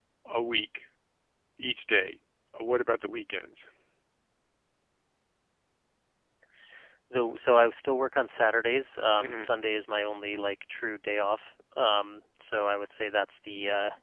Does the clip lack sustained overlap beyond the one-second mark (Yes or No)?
Yes